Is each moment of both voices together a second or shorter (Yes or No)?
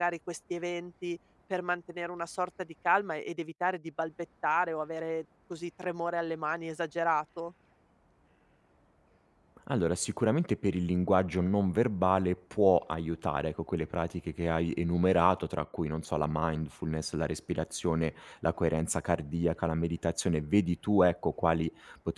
Yes